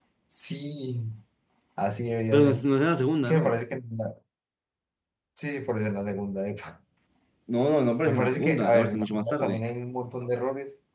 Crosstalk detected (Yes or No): Yes